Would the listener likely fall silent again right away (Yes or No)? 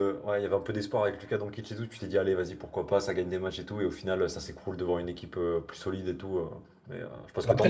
No